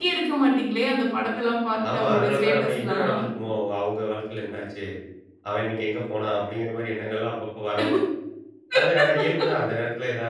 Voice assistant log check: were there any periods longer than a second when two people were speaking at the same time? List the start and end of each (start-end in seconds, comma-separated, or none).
1.9-3.1